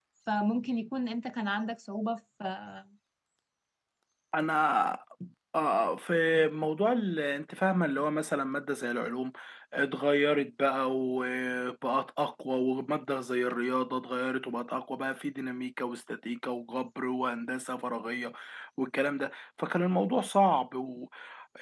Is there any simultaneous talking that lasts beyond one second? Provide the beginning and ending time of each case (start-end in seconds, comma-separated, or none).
none